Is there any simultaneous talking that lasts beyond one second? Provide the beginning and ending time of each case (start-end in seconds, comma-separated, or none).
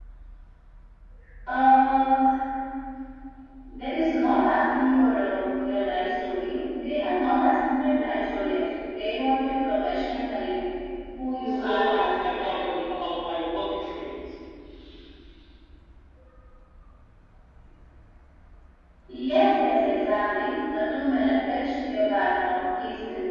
11.4-12.8